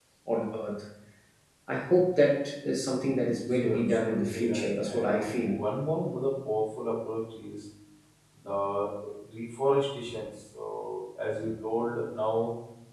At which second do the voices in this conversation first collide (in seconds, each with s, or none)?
3.4 s